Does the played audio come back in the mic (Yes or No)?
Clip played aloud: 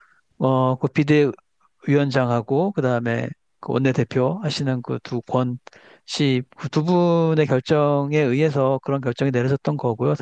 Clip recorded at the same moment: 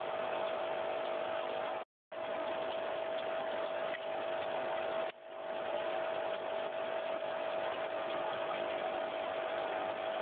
No